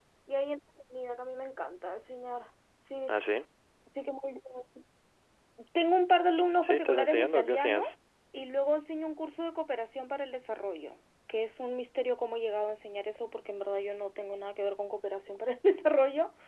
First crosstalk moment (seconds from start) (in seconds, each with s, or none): 6.6 s